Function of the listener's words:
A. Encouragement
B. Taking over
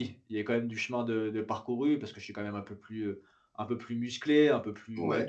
A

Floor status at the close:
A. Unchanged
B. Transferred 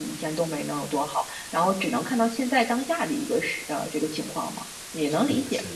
B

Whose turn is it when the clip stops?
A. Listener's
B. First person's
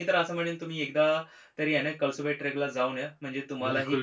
A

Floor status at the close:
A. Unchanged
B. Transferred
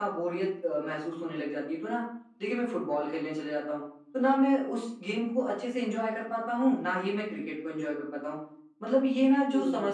A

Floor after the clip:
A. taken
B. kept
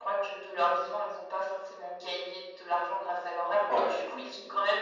B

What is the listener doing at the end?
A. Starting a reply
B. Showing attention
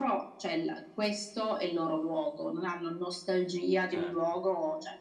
B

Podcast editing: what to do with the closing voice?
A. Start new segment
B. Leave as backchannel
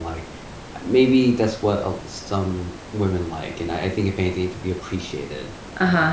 A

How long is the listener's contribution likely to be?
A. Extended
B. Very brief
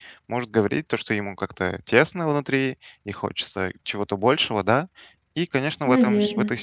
B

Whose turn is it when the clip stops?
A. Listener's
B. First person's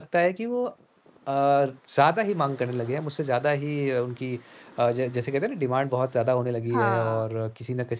B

